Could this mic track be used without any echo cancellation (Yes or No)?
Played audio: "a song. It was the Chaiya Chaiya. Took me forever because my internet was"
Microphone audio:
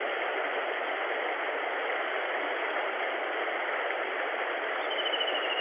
Yes